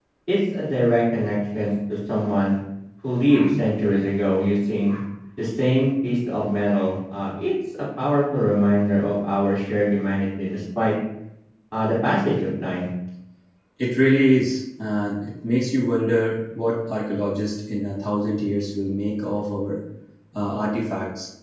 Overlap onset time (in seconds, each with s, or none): none